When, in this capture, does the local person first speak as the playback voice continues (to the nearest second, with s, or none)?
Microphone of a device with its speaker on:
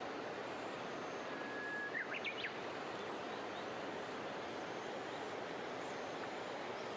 none